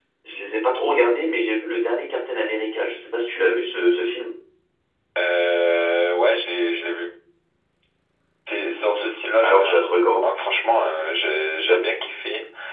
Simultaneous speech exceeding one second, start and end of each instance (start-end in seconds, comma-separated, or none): none